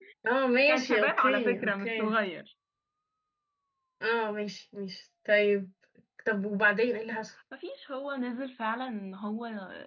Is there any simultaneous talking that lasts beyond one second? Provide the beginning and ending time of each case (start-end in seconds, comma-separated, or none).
0.7-2.1